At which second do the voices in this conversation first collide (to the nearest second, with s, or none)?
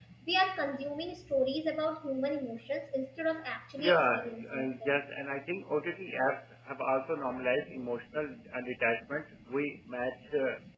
4 s